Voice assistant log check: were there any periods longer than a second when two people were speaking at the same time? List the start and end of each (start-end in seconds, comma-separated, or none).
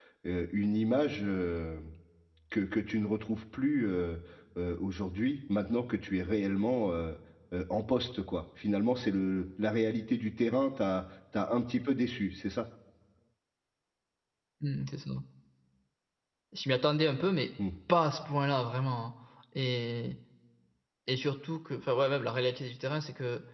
none